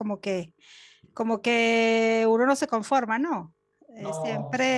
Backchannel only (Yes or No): Yes